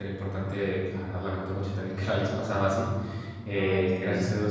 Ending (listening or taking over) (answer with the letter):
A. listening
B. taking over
A